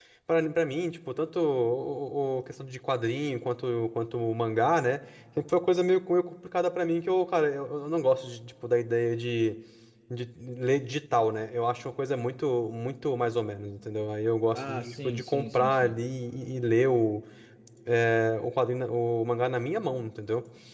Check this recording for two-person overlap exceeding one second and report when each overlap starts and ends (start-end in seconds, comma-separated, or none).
14.5-15.9